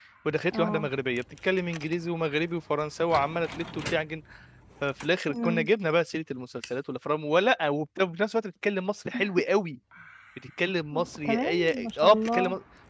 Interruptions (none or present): present